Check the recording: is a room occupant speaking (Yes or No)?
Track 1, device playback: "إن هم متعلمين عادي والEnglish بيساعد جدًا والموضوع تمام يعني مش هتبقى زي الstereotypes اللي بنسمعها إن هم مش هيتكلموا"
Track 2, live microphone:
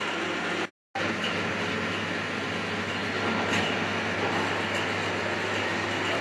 No